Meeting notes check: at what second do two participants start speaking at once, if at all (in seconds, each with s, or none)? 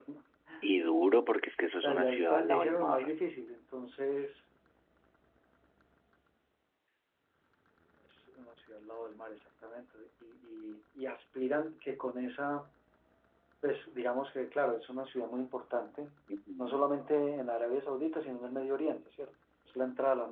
1.8 s